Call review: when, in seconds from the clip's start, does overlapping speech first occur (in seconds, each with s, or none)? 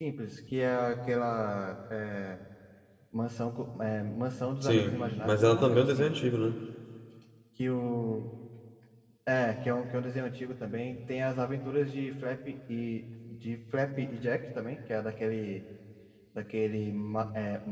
4.6 s